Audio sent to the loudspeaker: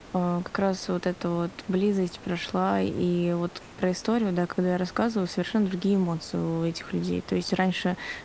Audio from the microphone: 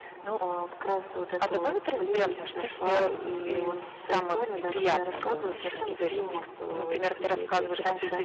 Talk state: both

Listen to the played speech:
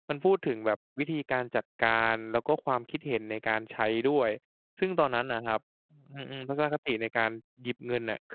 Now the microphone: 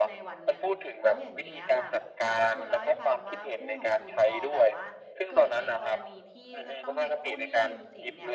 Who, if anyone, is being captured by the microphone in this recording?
both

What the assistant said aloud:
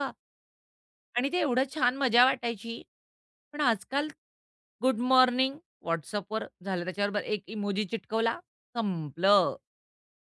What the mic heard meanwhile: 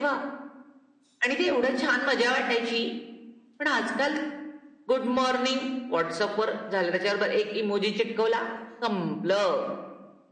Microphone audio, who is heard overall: echo only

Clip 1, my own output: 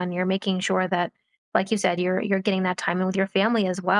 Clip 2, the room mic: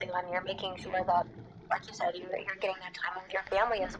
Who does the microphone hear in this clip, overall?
echo only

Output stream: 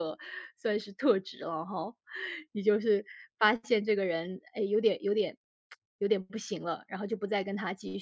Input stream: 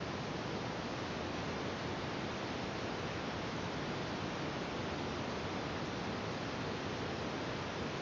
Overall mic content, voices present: neither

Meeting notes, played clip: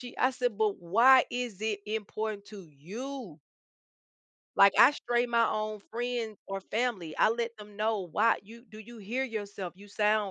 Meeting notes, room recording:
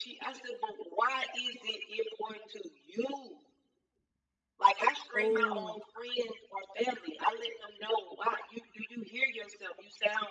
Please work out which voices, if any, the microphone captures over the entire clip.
both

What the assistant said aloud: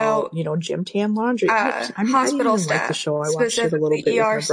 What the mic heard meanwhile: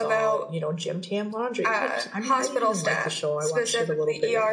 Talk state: echo only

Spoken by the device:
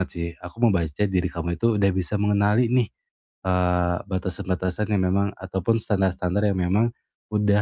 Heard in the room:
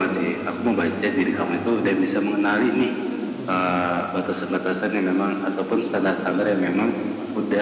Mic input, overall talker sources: both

